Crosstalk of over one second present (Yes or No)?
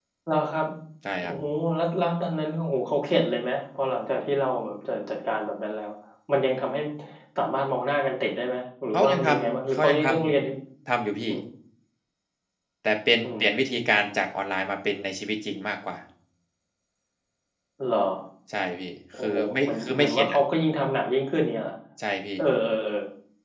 Yes